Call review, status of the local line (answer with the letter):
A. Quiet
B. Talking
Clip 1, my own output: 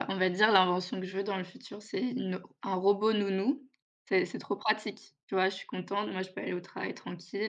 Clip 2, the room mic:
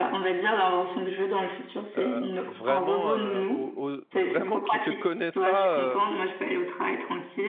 B